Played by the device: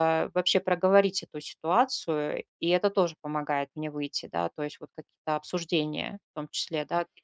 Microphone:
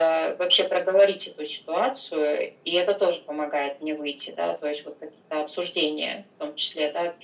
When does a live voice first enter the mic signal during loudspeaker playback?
none

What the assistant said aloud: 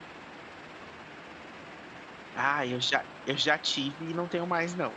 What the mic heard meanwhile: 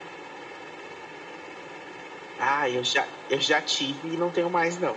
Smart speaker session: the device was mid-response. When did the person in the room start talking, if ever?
none

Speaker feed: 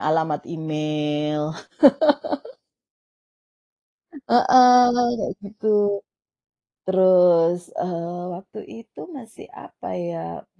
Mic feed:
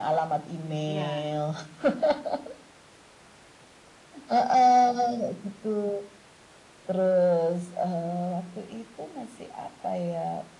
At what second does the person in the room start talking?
1 s

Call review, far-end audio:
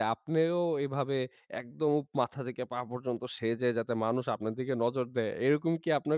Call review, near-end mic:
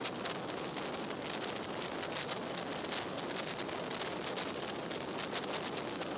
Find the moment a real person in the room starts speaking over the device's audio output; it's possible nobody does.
none

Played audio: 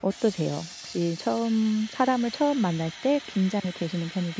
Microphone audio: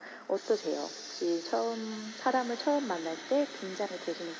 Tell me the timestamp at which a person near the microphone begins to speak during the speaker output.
none

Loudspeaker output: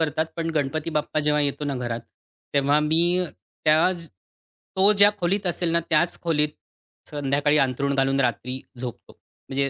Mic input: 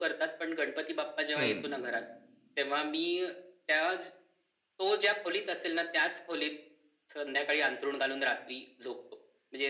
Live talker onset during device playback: 1 s

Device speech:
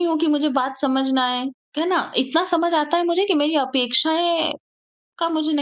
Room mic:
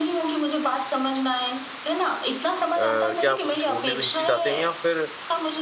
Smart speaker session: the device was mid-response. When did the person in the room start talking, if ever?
3 s

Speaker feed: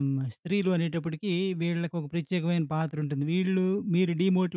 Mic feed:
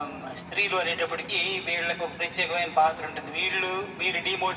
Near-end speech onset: none

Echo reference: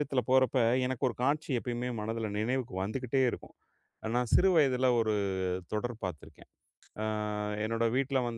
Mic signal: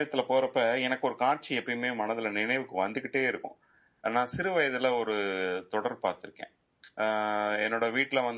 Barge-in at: none

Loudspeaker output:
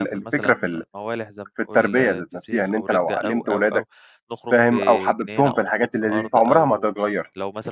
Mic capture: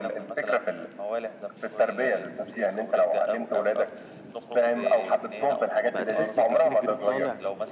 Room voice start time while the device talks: 6 s

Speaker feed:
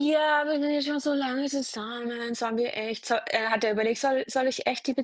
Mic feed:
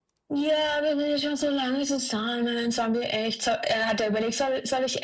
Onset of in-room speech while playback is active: none

